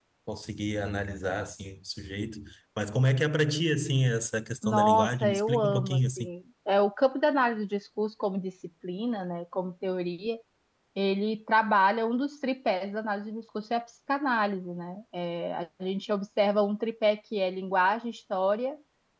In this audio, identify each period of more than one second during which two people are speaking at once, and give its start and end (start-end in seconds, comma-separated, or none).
4.6-6.3